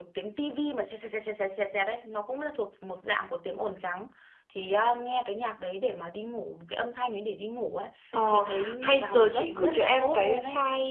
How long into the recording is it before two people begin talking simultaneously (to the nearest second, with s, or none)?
8 s